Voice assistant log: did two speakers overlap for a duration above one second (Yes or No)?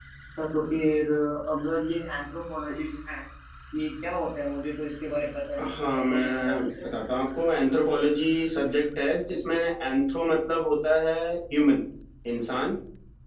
Yes